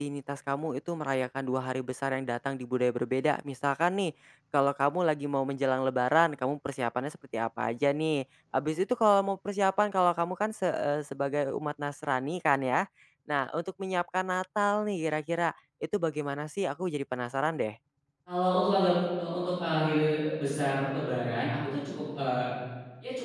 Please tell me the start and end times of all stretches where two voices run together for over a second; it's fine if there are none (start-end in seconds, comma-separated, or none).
none